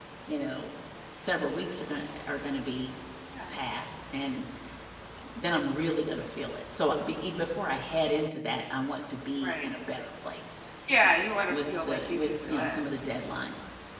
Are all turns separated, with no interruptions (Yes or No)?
No